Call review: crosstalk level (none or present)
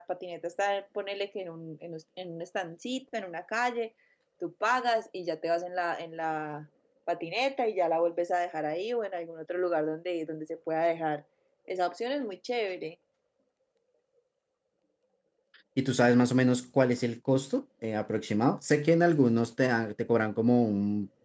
none